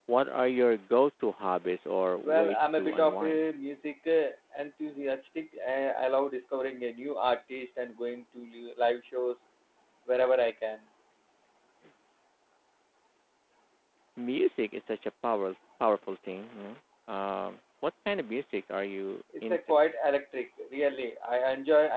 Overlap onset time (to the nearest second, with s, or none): 2 s